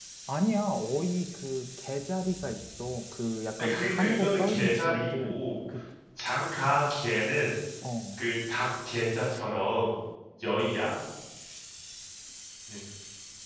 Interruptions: present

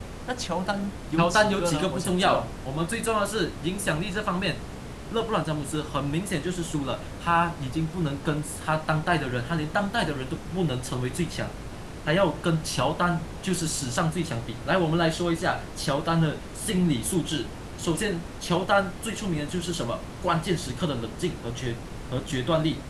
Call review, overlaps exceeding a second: present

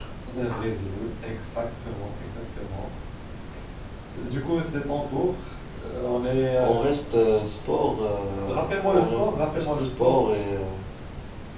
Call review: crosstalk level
present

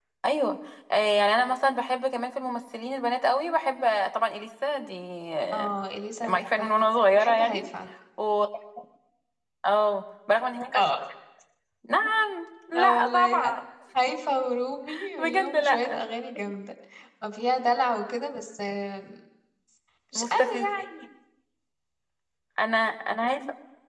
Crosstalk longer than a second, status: present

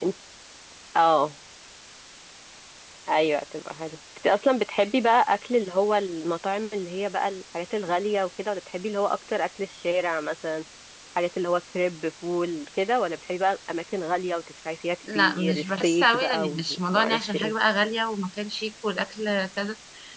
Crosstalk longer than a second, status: present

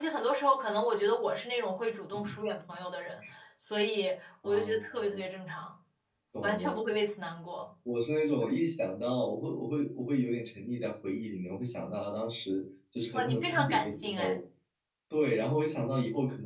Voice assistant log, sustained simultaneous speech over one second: present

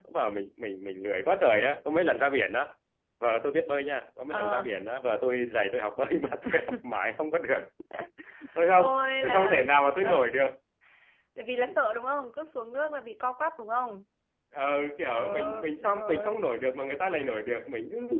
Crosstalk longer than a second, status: present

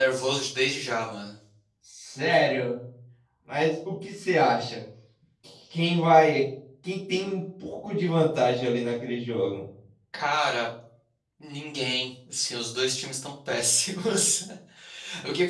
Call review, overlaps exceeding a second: none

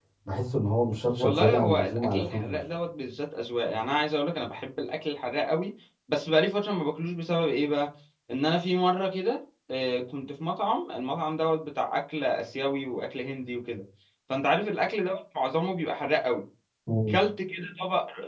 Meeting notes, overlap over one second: present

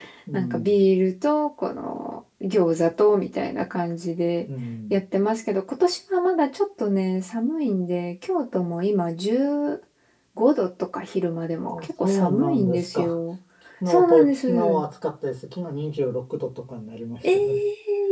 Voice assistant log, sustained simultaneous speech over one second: present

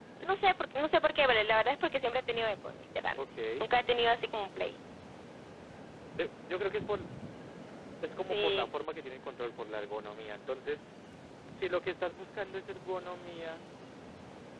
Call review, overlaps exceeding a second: none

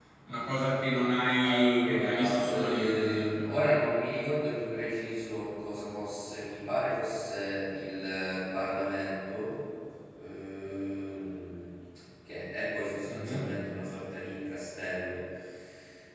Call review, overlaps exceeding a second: present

